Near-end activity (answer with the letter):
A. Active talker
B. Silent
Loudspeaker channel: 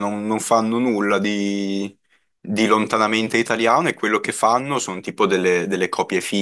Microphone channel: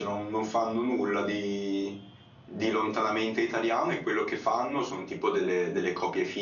B